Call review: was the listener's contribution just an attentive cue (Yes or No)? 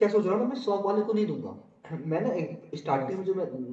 Yes